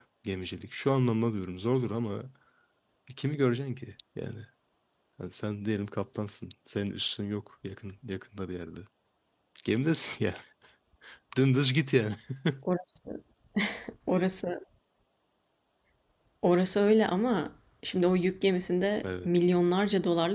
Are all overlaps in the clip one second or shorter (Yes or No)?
Yes